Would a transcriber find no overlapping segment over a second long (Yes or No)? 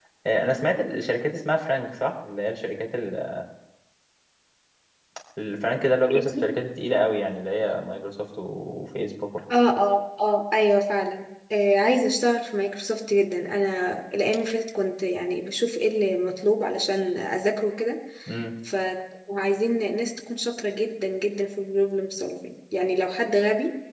Yes